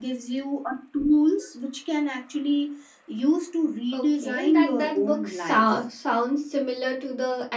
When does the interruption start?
4 s

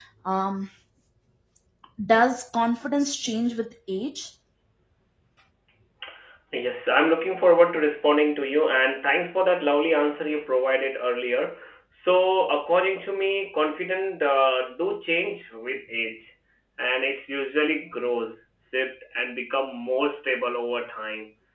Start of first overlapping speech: none

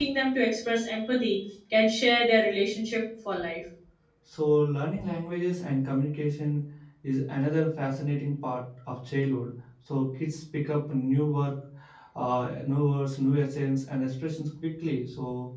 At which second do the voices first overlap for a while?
none

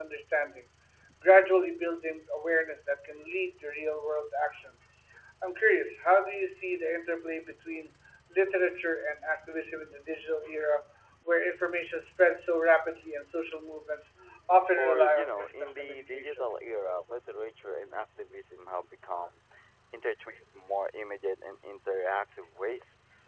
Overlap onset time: 15 s

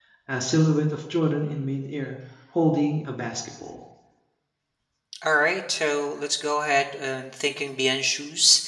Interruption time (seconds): none

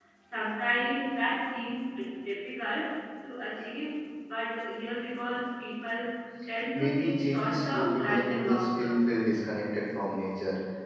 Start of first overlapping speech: 7 s

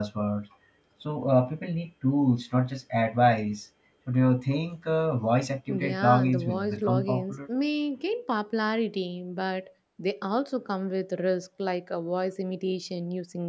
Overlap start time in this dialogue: 6 s

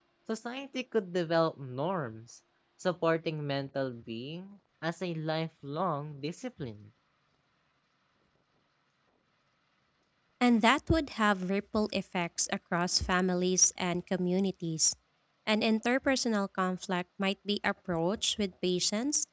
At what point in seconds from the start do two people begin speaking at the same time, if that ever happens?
none

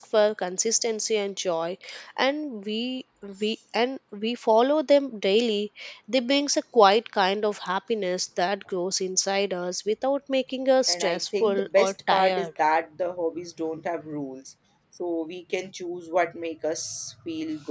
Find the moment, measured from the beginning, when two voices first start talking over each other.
11 s

